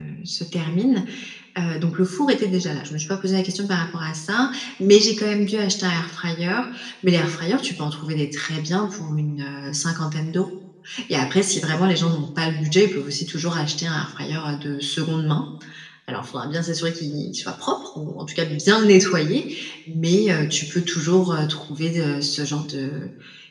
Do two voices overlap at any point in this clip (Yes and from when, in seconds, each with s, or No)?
No